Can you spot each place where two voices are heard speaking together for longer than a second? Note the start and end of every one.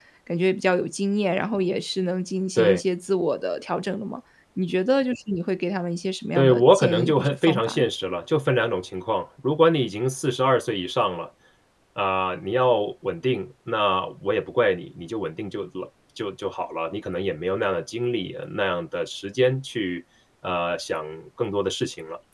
6.4-7.9

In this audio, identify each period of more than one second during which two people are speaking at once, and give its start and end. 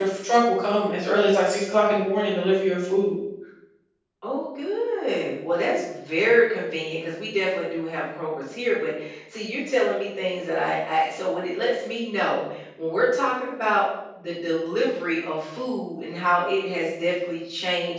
none

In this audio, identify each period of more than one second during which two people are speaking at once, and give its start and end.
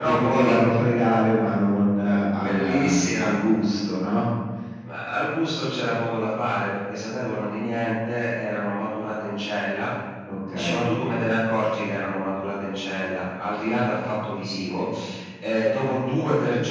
2.0-3.4

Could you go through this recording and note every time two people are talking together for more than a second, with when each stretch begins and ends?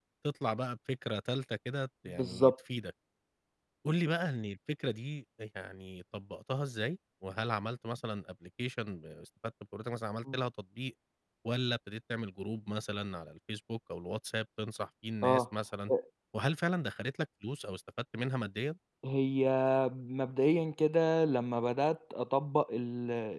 none

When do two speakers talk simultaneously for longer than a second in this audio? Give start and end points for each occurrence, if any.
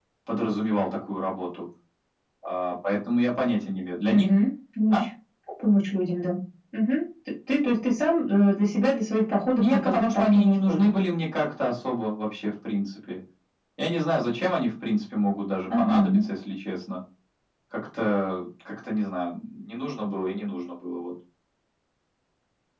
9.6-11.0

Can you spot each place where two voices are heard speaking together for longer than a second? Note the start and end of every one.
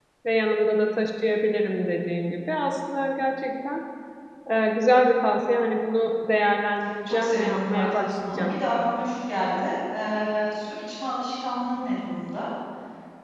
7.1-8.6

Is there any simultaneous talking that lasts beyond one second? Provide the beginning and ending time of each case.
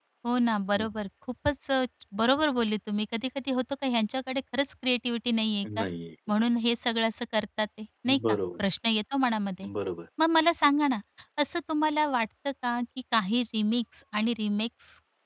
none

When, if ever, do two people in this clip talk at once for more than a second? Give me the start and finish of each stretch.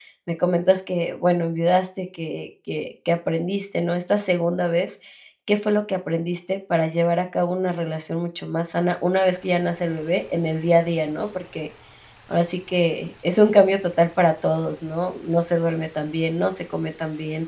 none

